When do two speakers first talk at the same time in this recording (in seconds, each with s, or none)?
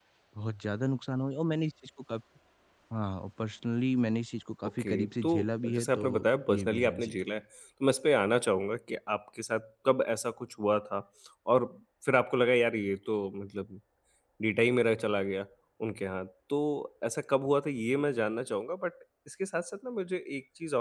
4.8 s